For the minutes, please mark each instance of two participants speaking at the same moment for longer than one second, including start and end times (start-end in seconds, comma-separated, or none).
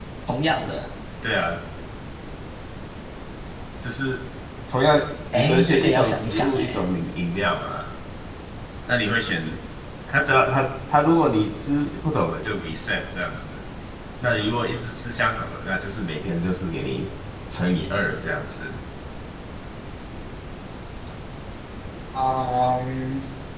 5.3-6.8